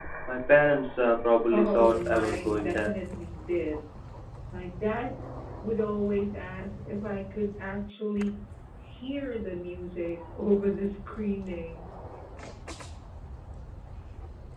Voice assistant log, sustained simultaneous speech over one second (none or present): present